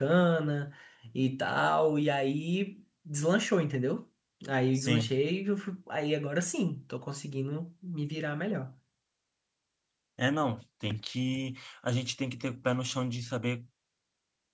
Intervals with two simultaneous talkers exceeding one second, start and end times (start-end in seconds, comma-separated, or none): none